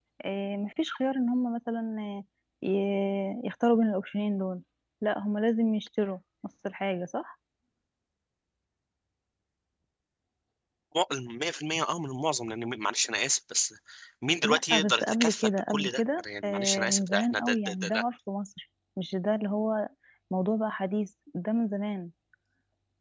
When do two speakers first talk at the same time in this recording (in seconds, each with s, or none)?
14.4 s